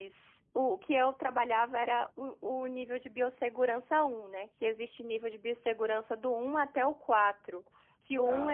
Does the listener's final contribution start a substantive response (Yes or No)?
No